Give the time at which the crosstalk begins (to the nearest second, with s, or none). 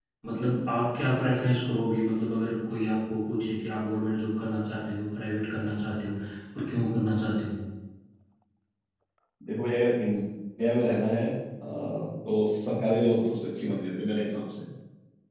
none